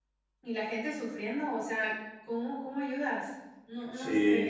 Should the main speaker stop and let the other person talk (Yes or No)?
Yes